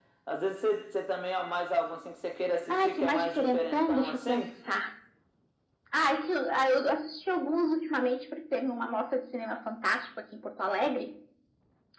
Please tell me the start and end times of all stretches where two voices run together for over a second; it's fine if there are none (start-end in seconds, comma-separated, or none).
2.7-4.5